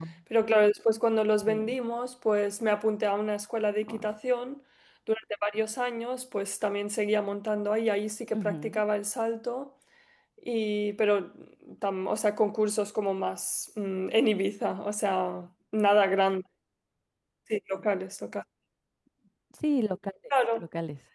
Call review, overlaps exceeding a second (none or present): none